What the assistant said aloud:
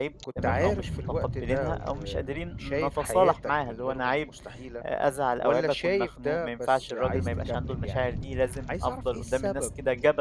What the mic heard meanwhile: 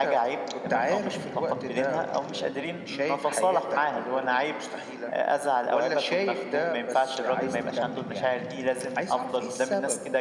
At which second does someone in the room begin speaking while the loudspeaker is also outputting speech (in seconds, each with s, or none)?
none